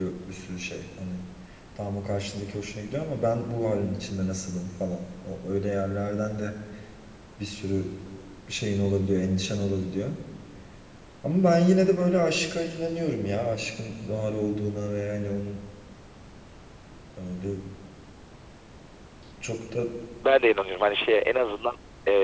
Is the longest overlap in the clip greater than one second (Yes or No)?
No